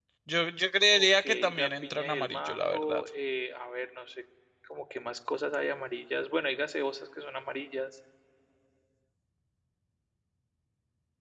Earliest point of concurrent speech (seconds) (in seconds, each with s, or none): 0.9 s